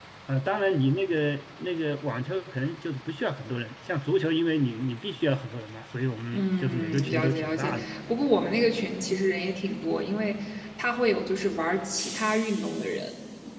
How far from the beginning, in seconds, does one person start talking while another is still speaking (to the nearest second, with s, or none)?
6 s